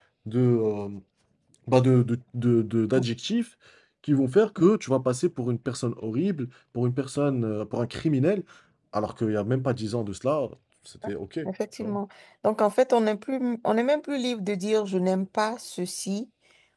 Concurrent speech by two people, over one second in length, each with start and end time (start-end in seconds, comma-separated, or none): none